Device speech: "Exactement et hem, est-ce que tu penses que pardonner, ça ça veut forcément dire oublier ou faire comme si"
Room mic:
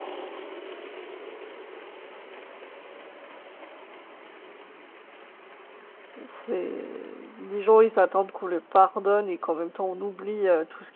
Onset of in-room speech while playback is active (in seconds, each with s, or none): 6.2 s